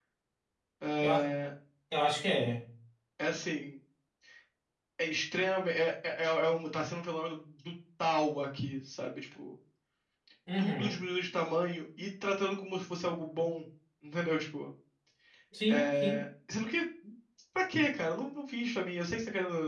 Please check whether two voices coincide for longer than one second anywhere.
No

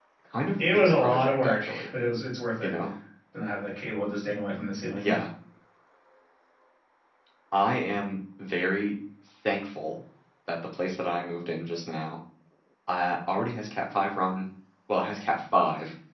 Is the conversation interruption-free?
No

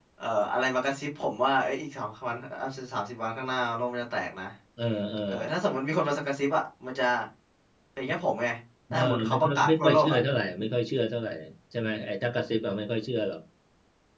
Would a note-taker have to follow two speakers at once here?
Yes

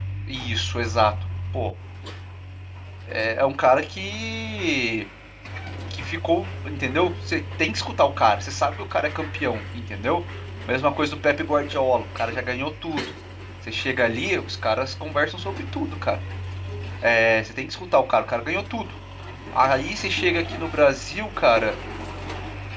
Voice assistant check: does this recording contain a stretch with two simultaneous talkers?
No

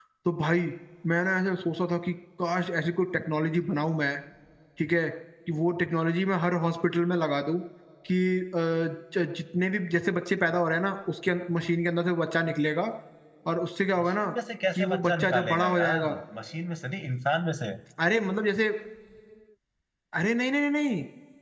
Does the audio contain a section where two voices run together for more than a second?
Yes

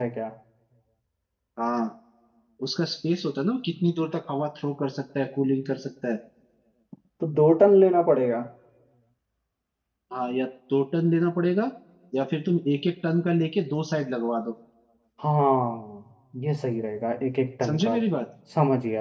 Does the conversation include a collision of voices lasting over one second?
No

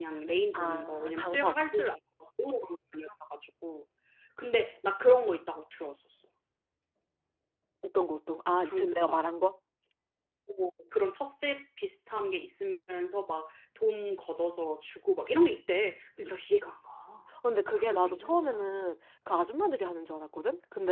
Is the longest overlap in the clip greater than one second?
Yes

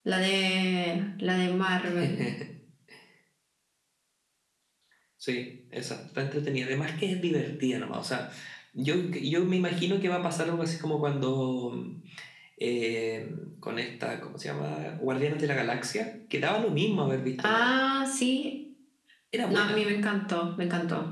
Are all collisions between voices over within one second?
Yes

